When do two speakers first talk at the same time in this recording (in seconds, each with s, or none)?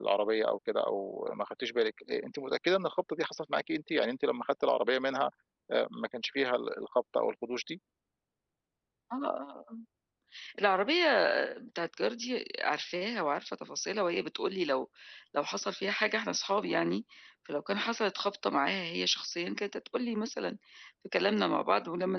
none